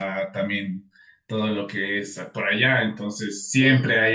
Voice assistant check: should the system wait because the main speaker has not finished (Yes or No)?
Yes